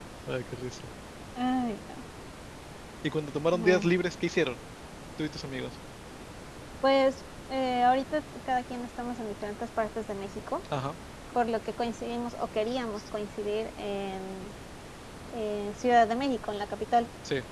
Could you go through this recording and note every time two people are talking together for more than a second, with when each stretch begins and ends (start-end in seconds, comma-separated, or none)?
none